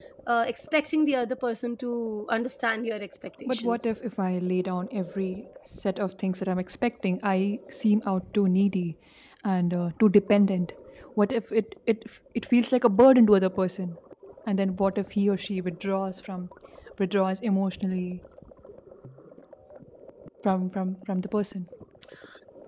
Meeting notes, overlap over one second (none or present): none